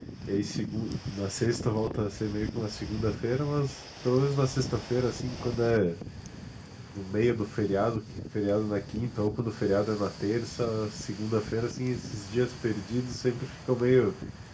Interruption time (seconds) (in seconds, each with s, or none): none